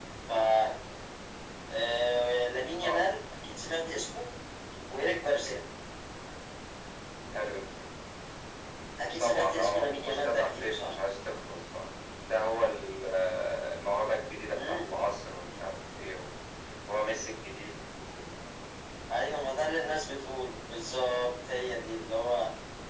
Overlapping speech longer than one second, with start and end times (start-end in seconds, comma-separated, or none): 9.2-10.9